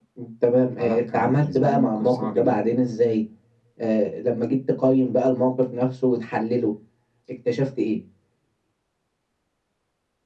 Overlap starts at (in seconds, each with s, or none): 0.8 s